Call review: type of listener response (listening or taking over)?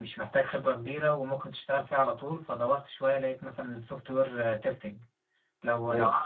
listening